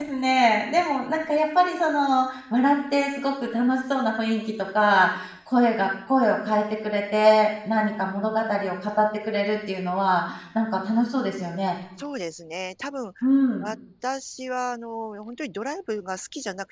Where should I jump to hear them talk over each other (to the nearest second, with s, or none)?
none